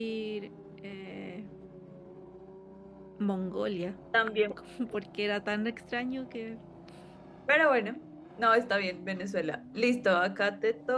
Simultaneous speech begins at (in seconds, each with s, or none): none